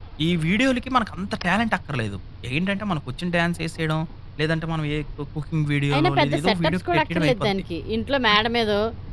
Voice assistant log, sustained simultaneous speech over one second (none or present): present